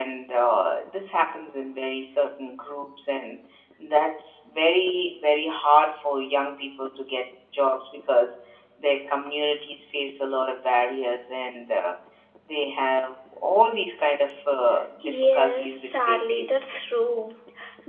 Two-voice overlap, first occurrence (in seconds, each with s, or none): 15.0 s